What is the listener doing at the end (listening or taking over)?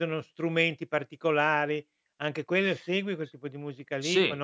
taking over